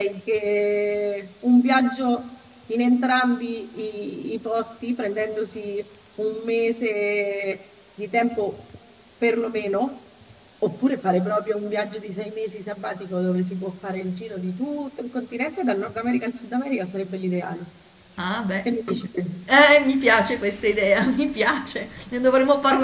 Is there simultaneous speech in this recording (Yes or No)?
No